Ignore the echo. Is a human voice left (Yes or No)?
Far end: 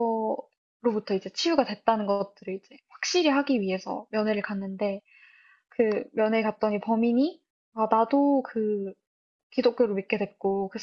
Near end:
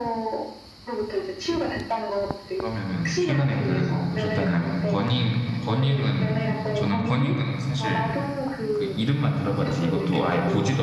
Yes